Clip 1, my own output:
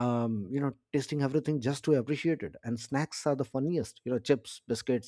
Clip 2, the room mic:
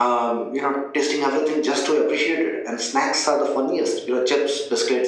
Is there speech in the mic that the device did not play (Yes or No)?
No